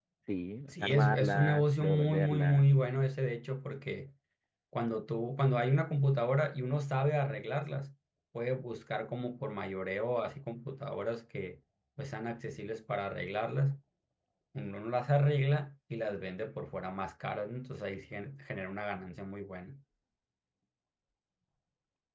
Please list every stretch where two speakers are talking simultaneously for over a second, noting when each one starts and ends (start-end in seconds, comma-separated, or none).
0.7-2.6